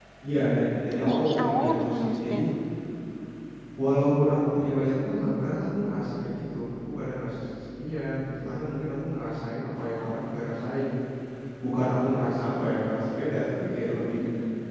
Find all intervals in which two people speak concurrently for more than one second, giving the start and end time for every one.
1.1-2.4

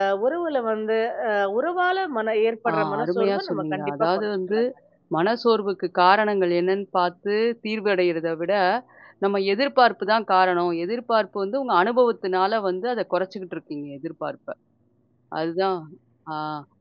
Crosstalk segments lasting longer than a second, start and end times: 2.7-4.6

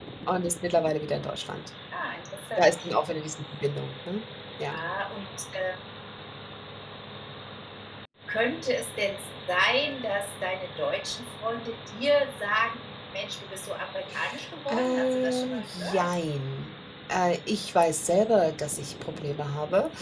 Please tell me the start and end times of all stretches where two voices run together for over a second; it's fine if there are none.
14.7-16.1

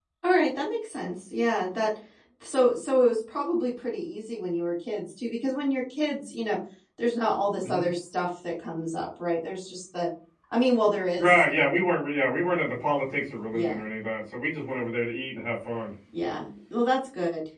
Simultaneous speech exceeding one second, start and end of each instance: none

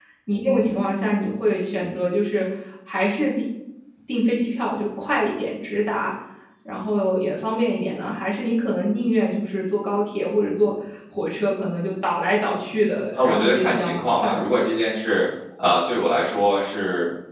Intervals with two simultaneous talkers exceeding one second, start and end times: 13.1-14.5

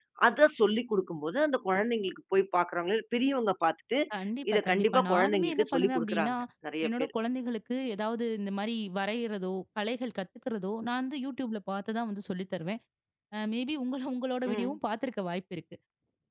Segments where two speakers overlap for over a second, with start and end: 4.5-6.3

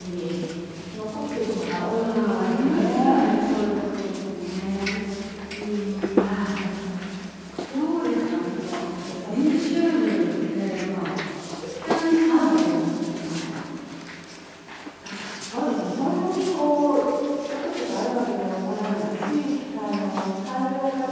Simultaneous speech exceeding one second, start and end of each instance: 1.9-3.2

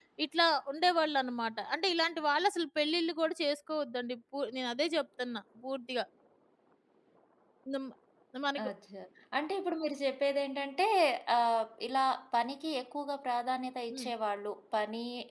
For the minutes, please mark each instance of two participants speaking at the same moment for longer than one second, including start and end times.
none

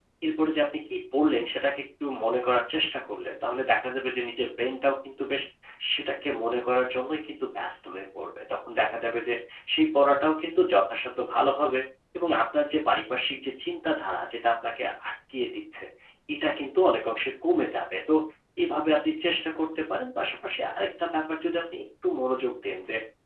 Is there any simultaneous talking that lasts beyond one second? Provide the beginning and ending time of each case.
none

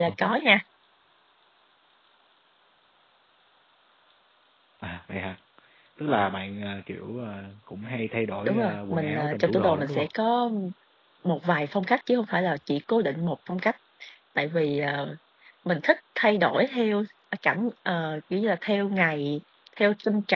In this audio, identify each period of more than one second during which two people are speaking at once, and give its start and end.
8.4-10.1

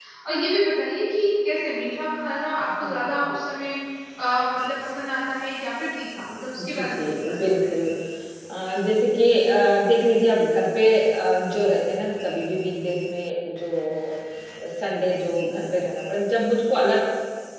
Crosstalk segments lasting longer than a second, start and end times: 6.6-7.8

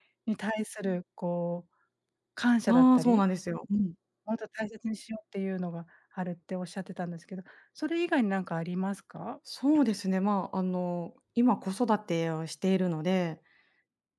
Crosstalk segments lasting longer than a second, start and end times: none

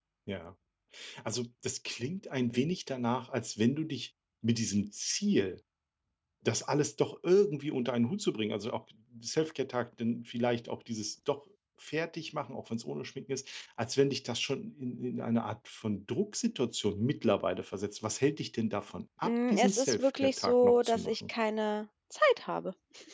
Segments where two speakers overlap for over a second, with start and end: 19.2-21.1

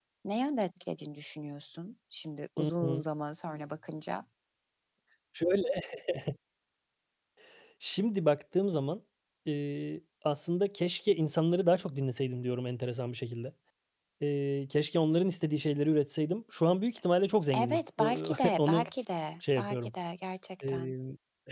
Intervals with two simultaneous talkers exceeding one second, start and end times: 17.6-18.9

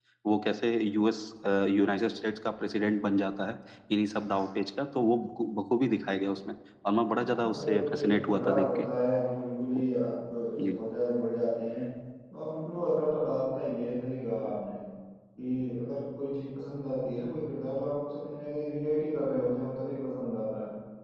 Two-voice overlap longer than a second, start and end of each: 7.2-8.8

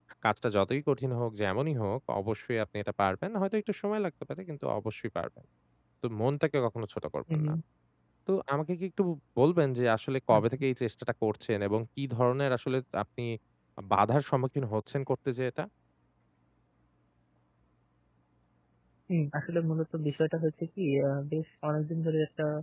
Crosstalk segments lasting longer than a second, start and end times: none

